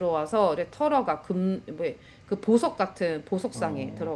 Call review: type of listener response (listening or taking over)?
taking over